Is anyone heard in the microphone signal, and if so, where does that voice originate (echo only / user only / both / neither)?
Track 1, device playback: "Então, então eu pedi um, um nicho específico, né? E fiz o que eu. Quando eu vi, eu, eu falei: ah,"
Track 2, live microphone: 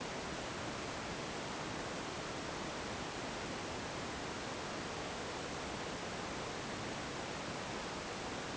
neither